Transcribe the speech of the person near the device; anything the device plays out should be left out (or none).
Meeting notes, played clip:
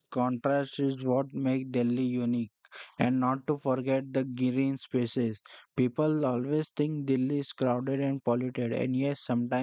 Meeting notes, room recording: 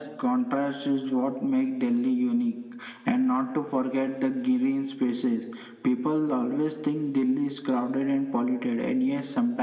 none